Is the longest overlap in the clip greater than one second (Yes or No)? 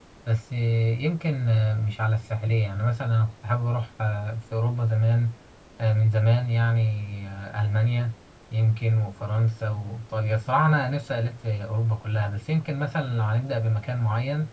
No